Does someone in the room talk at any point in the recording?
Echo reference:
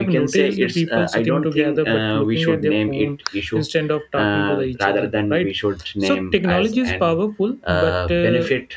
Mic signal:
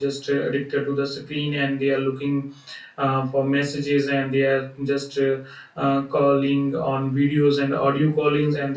Yes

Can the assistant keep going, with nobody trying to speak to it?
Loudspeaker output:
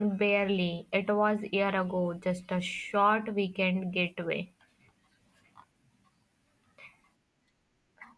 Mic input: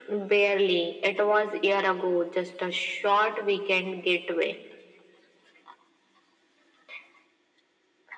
Yes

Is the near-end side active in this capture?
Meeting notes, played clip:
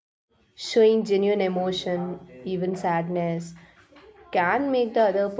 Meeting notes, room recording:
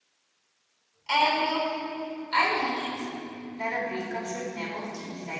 Yes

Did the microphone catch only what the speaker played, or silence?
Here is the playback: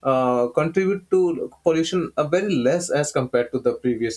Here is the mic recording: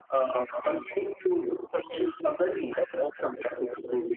Yes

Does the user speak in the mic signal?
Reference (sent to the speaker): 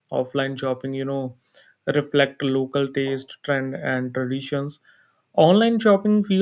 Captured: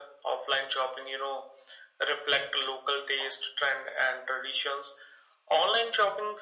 No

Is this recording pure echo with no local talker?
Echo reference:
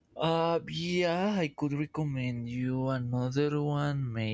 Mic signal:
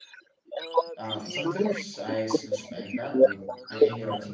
No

